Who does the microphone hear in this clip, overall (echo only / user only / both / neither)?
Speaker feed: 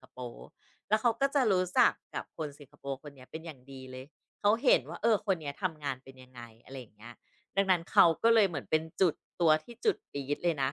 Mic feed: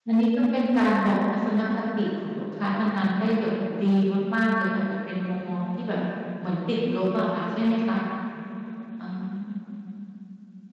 user only